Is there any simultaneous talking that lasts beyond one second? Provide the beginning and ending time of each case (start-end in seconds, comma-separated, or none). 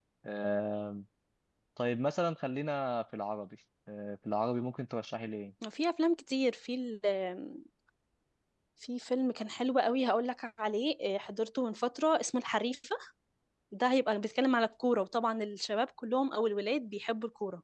none